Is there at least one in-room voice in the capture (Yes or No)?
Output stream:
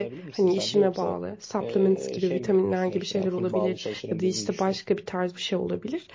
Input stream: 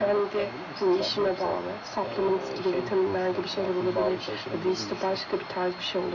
No